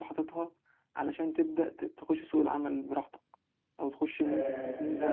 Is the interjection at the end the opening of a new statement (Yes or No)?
Yes